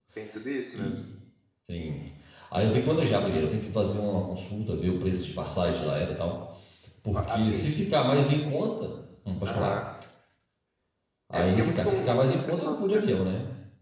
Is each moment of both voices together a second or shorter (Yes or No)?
No